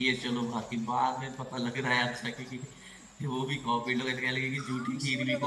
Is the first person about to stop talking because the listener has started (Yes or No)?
Yes